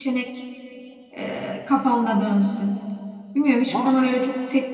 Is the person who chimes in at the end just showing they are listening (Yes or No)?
Yes